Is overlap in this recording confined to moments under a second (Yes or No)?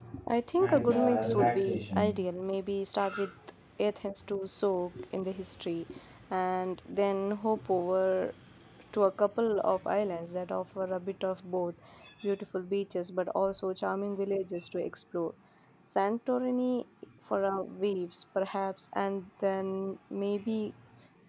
No